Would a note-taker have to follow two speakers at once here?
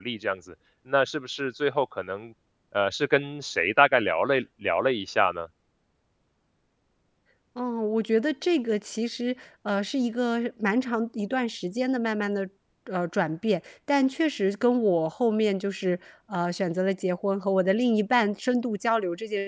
No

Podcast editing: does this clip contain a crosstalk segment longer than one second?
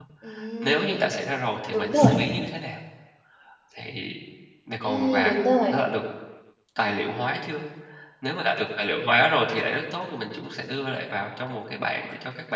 No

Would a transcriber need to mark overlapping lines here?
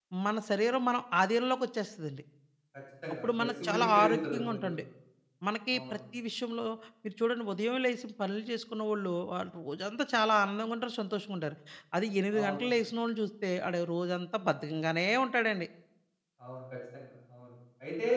Yes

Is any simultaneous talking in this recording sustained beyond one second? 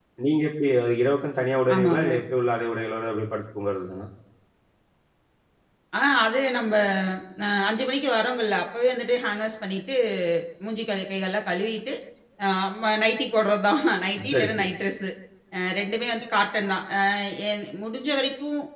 No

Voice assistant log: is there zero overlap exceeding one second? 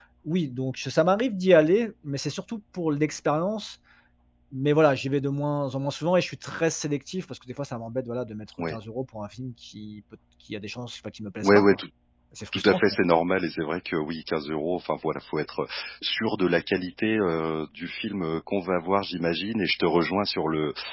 Yes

